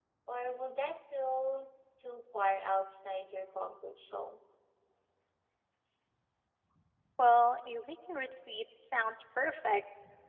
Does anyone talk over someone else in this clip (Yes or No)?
No